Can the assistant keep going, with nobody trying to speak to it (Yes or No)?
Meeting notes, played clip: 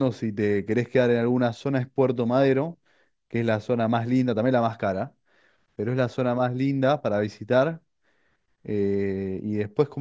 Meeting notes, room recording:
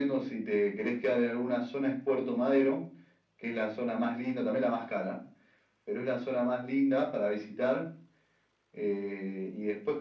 Yes